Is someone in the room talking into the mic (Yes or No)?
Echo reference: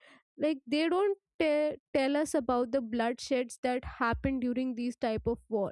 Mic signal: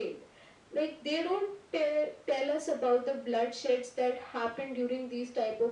No